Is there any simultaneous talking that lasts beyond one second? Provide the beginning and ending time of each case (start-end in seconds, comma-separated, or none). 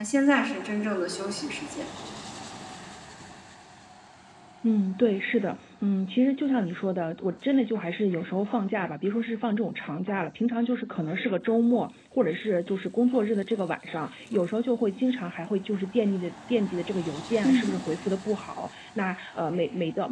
none